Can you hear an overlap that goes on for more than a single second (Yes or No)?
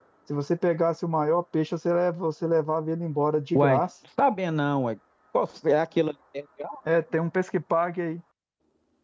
No